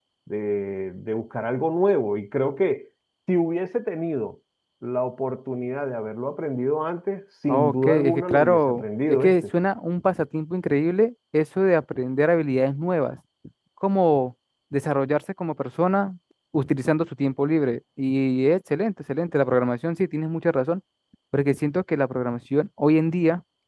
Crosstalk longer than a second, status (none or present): present